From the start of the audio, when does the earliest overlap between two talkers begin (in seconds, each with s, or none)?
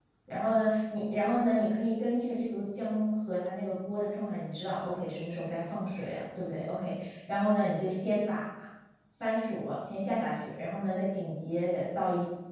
none